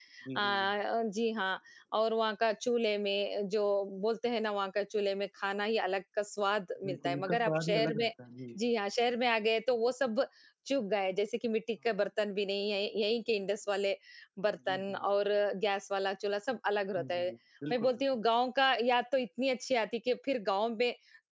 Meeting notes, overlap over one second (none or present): present